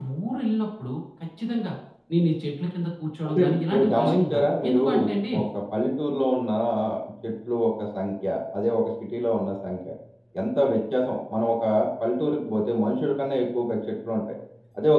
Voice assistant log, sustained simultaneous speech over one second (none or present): present